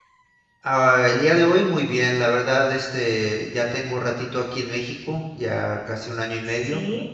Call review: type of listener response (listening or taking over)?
listening